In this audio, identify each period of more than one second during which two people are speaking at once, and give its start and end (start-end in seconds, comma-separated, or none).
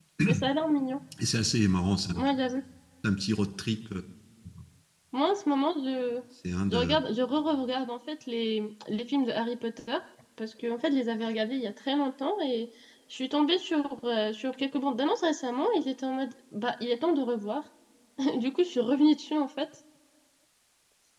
none